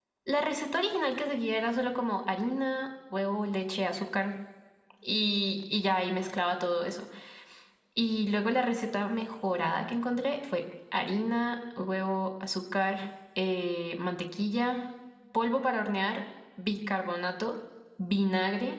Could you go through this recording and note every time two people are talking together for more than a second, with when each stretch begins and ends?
none

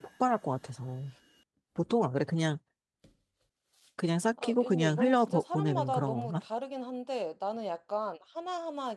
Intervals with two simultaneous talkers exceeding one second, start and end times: 4.4-6.3

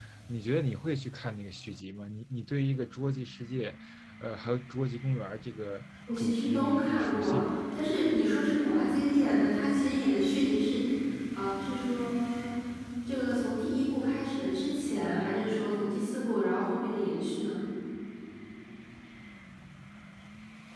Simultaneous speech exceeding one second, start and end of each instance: 6.2-7.6

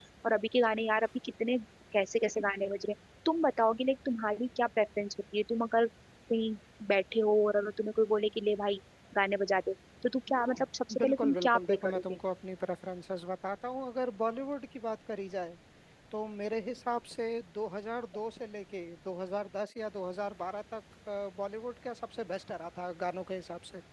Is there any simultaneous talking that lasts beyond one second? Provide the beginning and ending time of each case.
11.0-12.2

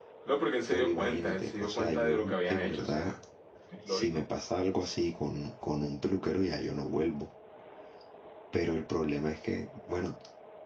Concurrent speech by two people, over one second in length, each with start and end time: 0.7-3.1

